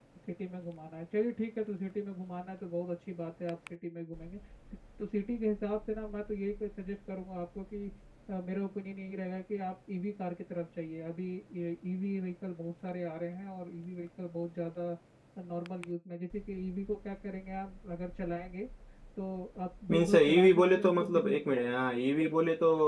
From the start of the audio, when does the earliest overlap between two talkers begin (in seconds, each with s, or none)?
19.9 s